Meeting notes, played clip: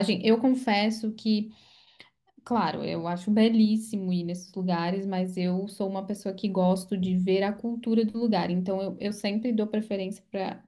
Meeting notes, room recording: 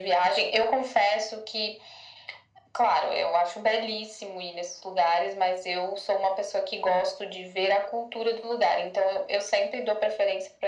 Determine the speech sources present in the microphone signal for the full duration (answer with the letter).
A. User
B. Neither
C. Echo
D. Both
C